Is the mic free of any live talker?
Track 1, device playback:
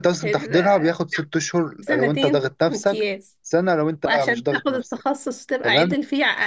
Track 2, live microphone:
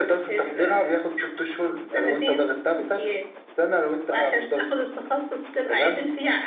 Yes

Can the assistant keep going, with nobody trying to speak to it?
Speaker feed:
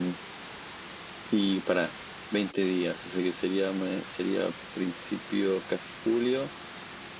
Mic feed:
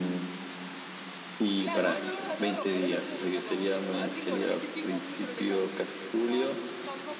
No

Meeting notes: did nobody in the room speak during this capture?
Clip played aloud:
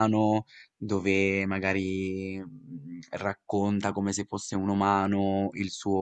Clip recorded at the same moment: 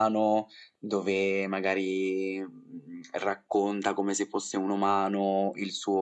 Yes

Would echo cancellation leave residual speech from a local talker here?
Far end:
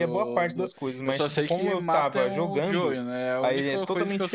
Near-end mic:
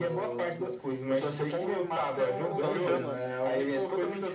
Yes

